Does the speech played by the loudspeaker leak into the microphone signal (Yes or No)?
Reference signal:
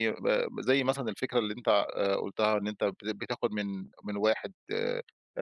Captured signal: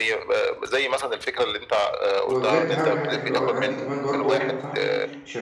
Yes